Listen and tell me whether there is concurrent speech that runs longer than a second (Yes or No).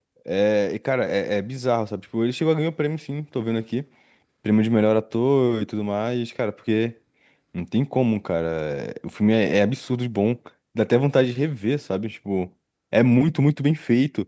No